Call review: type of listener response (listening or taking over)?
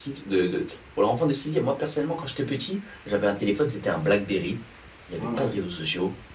listening